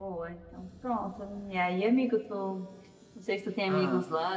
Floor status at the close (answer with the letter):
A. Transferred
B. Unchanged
B